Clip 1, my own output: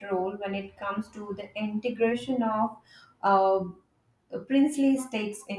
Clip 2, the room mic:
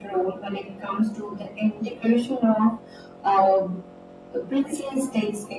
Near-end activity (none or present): none